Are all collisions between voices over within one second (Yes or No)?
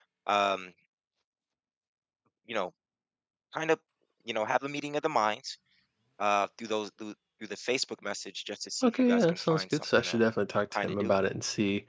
No